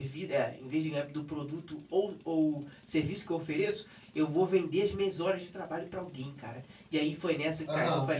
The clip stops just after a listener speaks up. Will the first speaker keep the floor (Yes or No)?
Yes